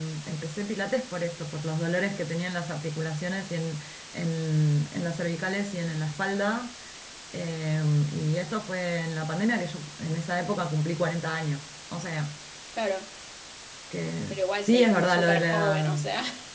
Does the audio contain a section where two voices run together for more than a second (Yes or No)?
Yes